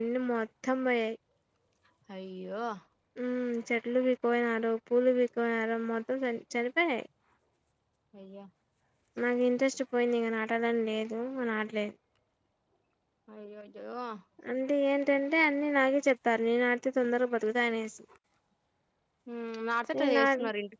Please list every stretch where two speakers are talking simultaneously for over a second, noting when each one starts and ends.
none

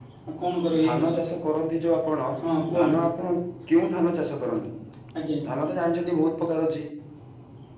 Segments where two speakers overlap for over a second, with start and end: none

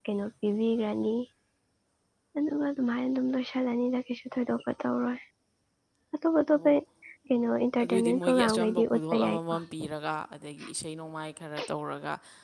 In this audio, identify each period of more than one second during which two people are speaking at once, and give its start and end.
7.8-9.5

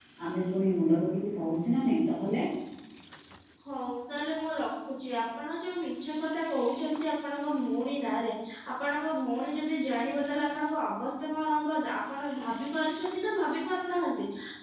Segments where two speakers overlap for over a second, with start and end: none

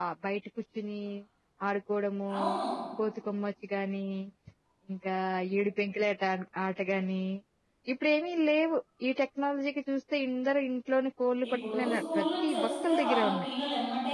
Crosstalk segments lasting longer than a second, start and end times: 11.5-13.5

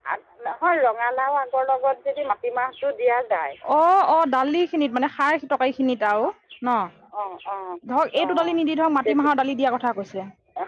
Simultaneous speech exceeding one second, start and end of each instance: none

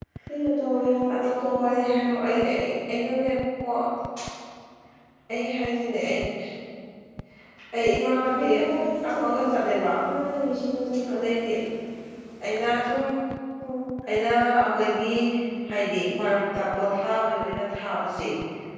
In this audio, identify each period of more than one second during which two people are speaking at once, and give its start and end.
1.1-2.4

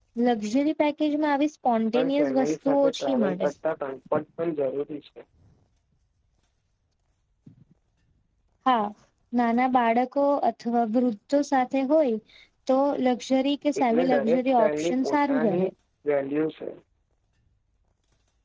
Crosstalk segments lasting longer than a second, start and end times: 1.9-3.5, 13.8-15.6

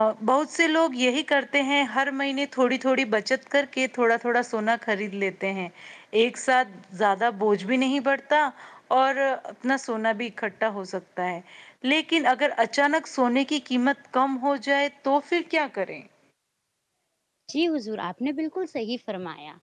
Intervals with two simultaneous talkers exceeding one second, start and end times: none

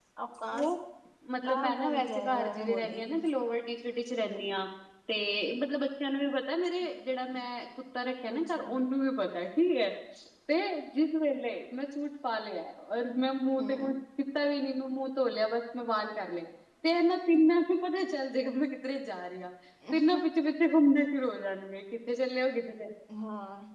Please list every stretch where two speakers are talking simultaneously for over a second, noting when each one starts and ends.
1.4-3.2

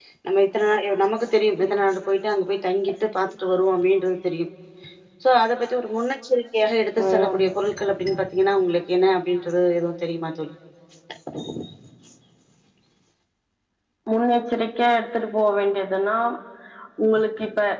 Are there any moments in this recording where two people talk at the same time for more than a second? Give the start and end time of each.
none

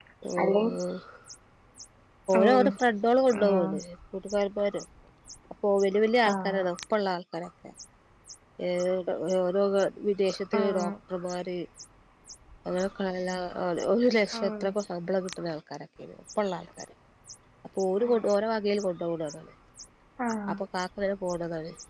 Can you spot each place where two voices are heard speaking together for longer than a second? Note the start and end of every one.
none

